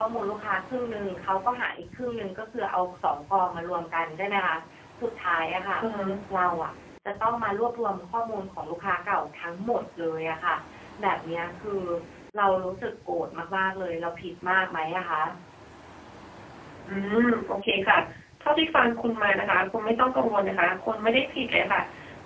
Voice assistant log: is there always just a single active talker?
Yes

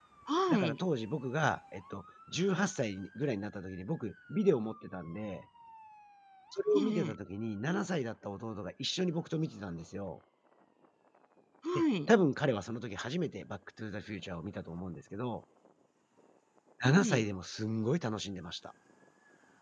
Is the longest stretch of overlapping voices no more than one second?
Yes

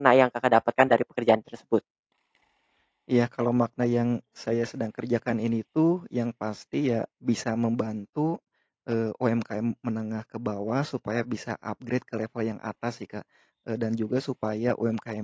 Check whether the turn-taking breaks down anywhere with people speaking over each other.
No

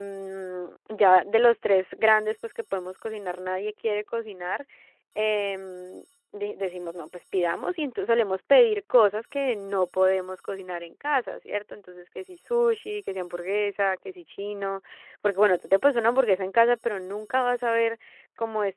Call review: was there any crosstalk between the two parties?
No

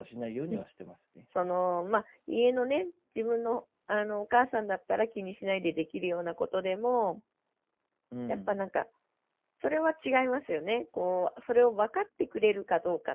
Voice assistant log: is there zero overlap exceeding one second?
Yes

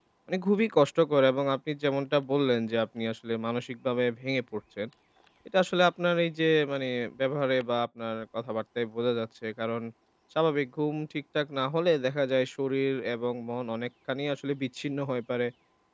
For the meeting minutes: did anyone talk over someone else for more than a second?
No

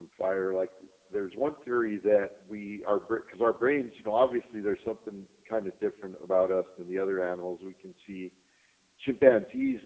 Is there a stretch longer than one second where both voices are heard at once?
No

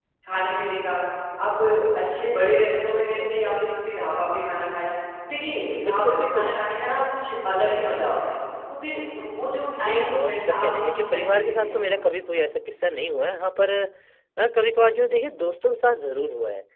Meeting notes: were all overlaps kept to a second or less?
No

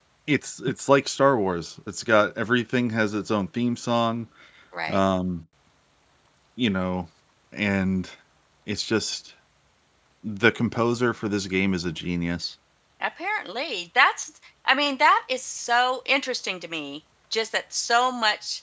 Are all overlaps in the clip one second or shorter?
Yes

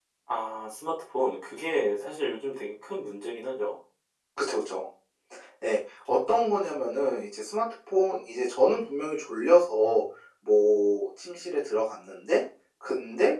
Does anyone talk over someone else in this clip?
No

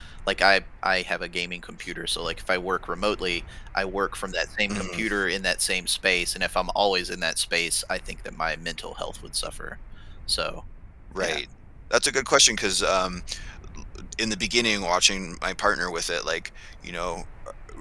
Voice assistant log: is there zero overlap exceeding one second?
Yes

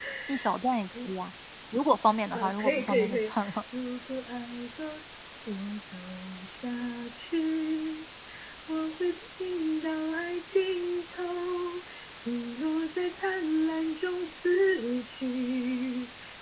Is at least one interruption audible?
Yes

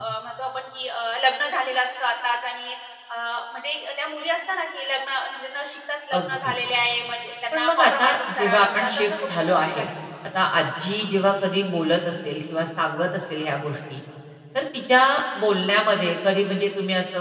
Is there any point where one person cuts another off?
Yes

